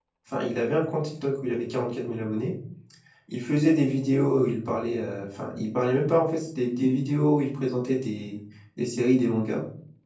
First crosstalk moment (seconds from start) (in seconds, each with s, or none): none